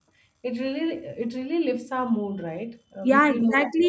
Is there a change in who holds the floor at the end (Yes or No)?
Yes